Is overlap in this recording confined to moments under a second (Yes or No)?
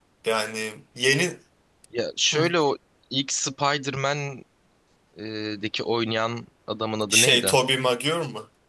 Yes